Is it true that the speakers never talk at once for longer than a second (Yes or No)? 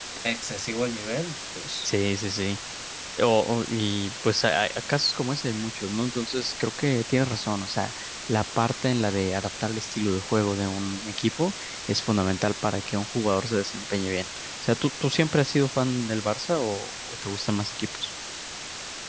Yes